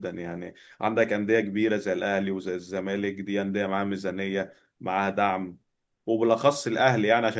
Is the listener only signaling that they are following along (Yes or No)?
Yes